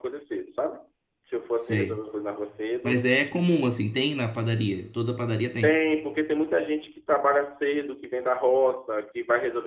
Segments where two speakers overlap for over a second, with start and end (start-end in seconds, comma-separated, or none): none